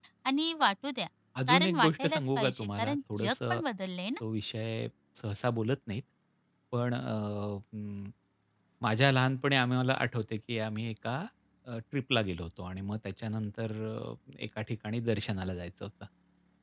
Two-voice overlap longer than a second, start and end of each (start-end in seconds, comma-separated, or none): 1.5-3.6